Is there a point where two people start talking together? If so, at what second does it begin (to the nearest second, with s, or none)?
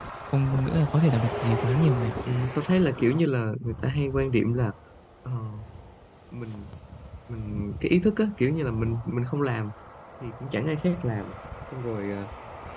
none